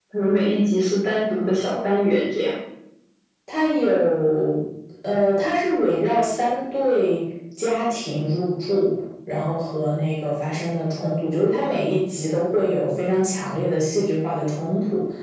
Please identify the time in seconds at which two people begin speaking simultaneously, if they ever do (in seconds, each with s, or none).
none